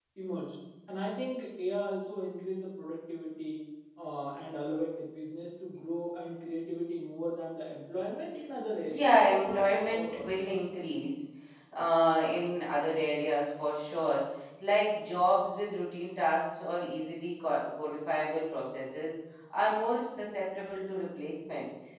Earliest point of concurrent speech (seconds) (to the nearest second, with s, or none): 9 s